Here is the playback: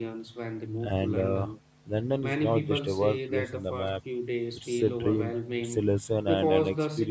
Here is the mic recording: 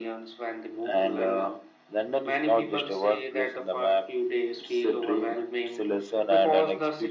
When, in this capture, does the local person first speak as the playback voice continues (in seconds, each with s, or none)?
none